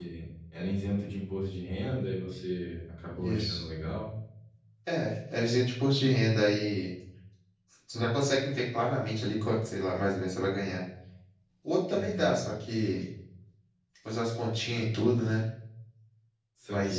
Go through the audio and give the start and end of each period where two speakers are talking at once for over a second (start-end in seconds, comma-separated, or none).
none